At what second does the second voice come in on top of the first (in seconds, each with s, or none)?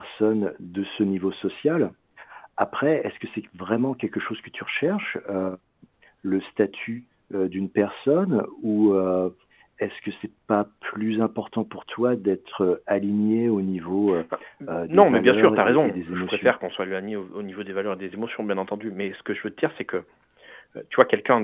14.9 s